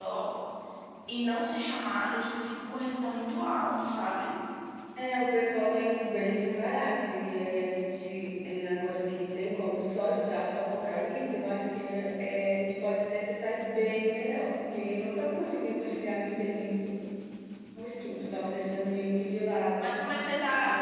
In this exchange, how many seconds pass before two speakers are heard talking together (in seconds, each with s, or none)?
none